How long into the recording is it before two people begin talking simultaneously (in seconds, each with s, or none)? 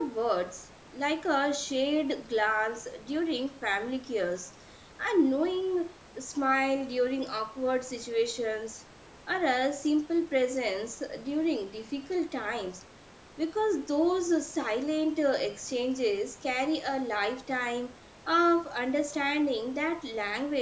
none